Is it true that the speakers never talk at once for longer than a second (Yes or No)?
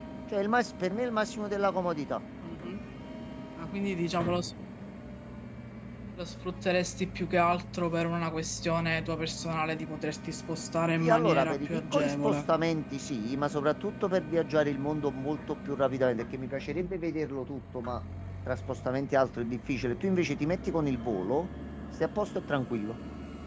No